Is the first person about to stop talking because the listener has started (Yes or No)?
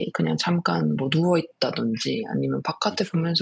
No